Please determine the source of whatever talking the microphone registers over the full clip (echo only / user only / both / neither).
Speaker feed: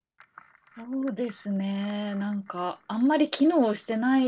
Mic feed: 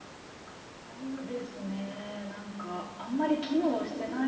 echo only